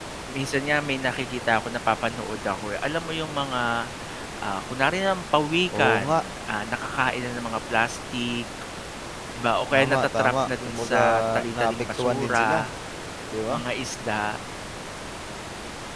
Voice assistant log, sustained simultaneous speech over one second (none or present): present